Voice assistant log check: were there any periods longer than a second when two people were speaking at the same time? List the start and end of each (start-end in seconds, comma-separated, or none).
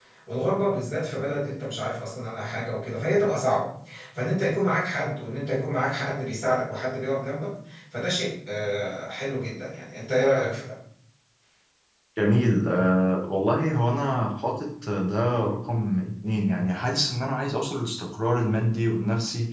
none